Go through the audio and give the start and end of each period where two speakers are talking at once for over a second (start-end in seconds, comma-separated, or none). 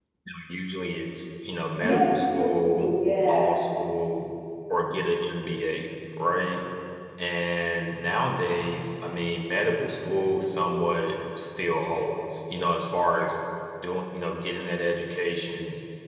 1.8-3.5